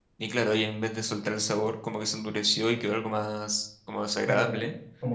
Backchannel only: No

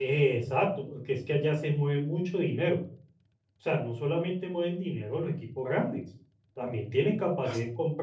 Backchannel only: Yes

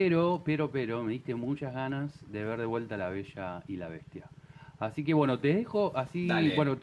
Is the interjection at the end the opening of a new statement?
No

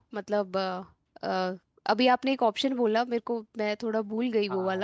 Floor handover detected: Yes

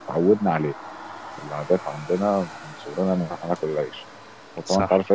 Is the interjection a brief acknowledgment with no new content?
Yes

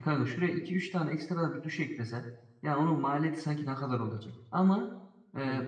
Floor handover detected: No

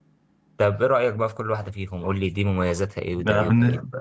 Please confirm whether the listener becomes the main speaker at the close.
Yes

